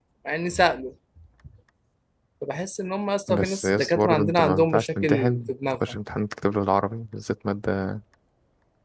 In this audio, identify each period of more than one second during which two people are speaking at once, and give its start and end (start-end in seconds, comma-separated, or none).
3.3-5.8